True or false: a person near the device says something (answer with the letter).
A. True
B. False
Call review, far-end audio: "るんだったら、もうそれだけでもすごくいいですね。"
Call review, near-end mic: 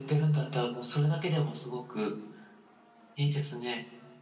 B